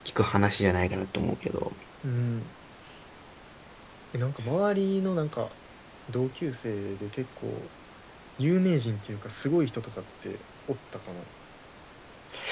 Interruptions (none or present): none